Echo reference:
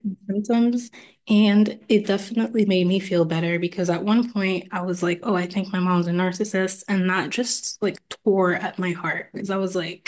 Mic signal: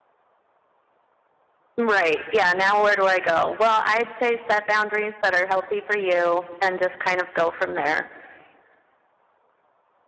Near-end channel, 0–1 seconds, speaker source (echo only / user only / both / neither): neither